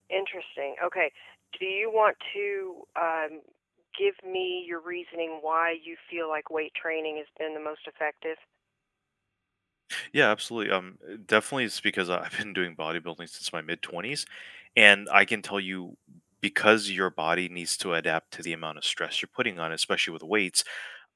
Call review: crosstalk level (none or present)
none